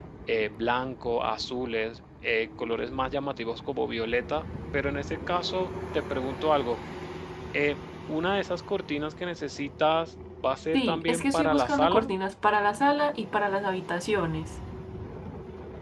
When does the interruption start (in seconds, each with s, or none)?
10.7 s